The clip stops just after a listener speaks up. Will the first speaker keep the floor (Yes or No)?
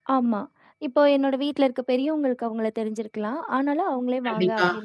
Yes